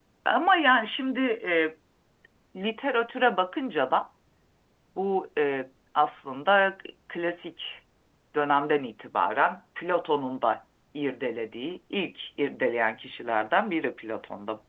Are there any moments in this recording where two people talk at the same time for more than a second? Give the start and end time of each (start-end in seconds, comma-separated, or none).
none